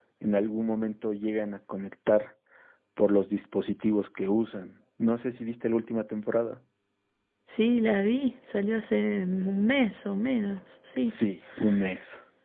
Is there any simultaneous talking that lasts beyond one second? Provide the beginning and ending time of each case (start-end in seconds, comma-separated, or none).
none